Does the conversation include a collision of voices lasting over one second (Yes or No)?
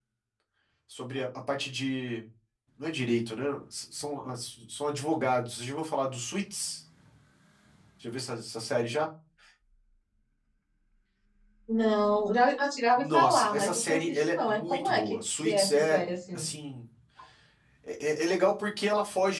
Yes